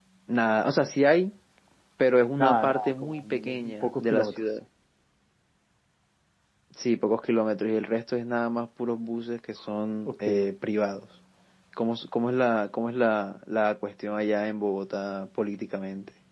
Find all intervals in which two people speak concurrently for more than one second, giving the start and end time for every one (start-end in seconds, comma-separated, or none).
2.4-4.4